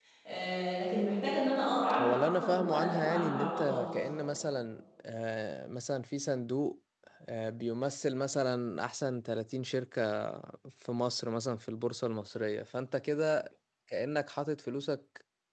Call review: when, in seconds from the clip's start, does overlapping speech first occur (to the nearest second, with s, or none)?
2 s